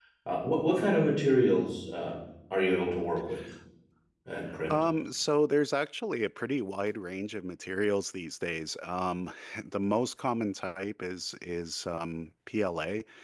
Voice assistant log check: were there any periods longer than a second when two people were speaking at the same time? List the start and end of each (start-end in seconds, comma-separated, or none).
none